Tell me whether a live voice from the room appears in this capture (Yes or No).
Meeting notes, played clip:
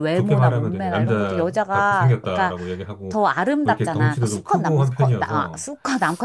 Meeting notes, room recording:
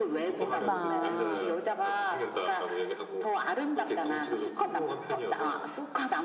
Yes